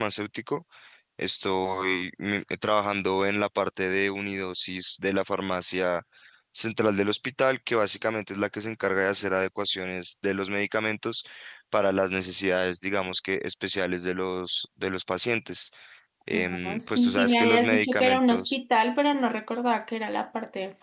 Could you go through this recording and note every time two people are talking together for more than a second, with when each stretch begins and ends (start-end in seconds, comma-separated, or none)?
16.3-18.6